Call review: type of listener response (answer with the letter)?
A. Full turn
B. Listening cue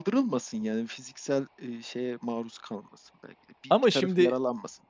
B